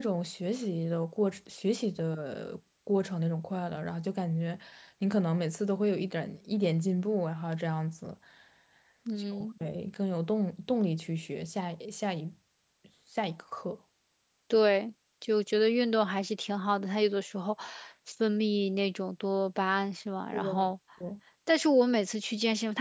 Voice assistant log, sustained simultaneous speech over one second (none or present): none